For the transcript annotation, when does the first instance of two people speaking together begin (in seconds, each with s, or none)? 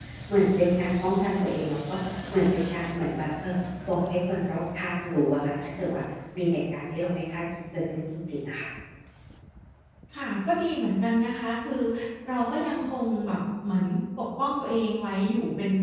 none